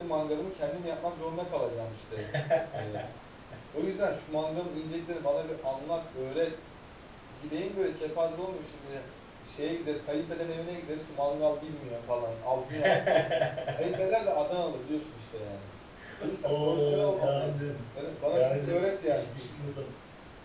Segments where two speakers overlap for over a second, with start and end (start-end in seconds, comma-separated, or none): 16.4-17.9, 18.3-19.7